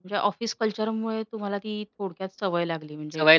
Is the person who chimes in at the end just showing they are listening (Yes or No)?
No